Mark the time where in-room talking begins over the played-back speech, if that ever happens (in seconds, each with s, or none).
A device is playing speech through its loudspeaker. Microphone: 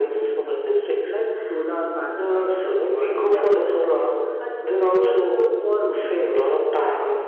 none